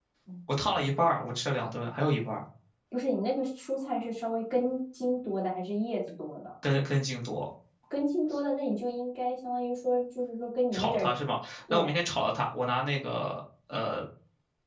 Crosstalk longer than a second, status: none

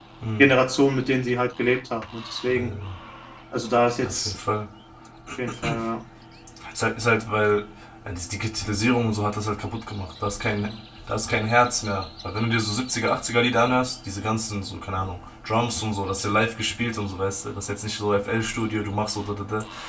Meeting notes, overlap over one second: none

